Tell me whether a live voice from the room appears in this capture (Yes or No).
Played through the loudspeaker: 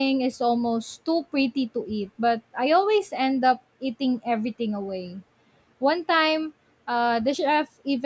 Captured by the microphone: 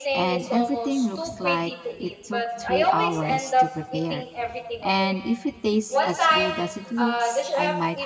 Yes